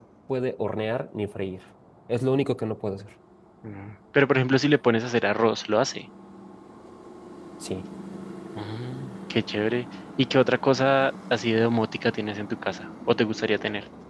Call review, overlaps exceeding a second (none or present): none